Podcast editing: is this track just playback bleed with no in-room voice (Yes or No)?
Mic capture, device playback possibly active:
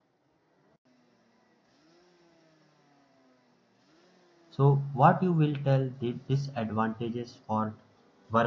No